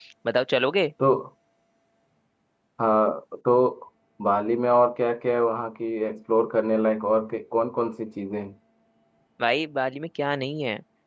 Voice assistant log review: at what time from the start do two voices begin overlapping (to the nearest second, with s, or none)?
none